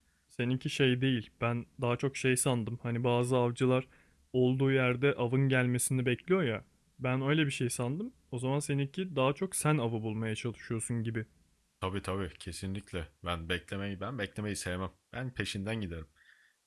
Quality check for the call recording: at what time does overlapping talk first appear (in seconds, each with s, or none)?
none